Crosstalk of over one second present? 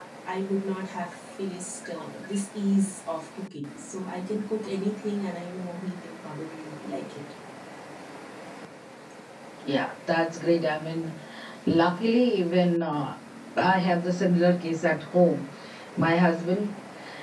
No

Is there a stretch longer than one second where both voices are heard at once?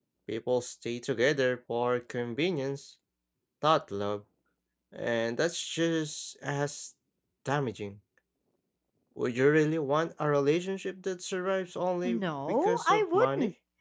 Yes, from 12.0 s

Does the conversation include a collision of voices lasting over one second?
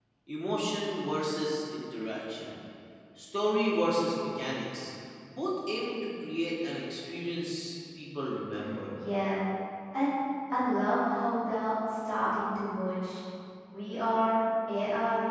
No

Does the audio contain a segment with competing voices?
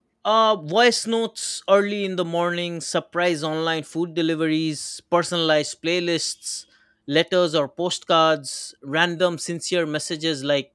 No

